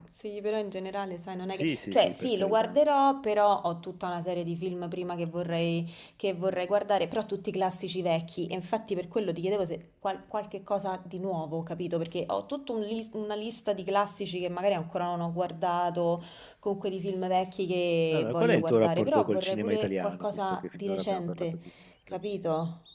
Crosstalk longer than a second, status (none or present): present